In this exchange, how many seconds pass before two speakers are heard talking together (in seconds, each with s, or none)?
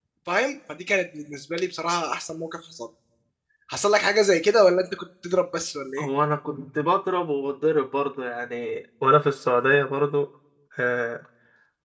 none